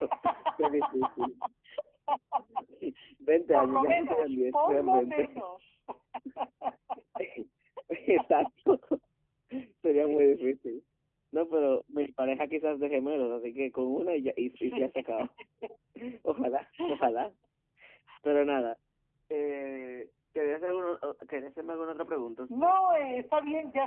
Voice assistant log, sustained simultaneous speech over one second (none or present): present